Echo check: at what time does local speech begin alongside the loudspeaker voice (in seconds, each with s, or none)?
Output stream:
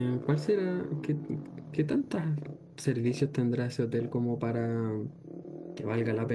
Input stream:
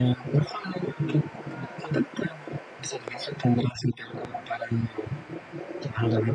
none